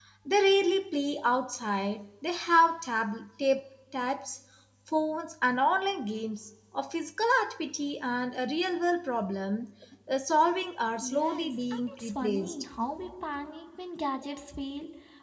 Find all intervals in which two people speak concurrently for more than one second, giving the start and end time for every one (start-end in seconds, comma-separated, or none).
11.0-12.7